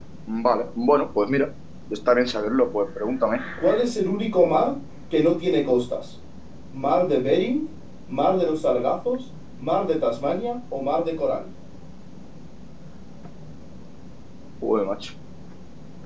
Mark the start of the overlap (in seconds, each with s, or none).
none